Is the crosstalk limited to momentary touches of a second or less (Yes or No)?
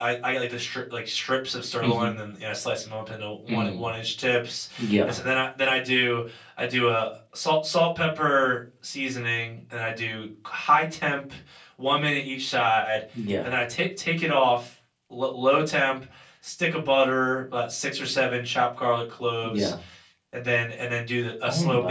Yes